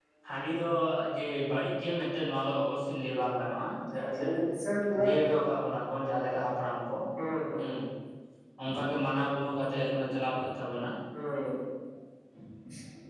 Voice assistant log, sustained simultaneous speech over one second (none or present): none